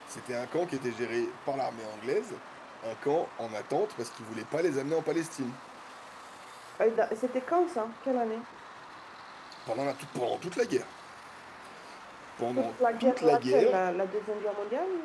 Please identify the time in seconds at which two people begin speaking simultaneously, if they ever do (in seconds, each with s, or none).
12.6 s